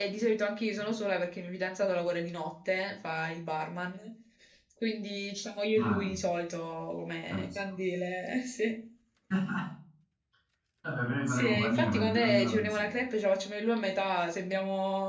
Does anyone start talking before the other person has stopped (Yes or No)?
Yes